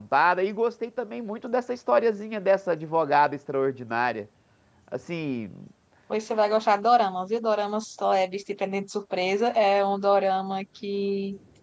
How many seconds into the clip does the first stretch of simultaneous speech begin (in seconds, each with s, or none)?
none